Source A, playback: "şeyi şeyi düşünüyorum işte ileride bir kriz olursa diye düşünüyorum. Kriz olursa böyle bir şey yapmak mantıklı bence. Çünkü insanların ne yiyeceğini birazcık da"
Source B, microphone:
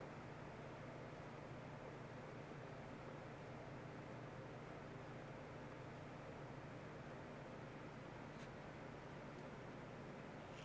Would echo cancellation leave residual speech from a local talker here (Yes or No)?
No